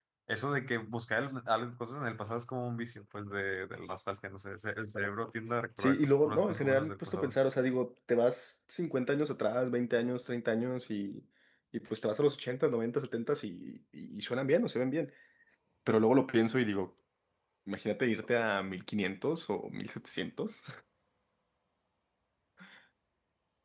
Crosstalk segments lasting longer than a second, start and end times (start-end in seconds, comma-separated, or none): 5.8-7.3